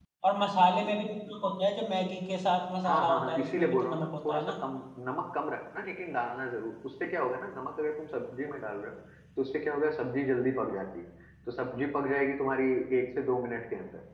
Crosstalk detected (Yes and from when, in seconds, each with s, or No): Yes, from 2.8 s